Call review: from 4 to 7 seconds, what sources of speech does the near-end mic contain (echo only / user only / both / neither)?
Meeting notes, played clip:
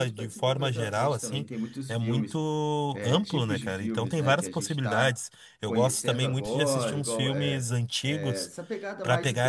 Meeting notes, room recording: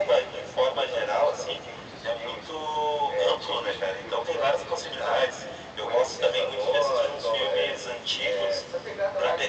echo only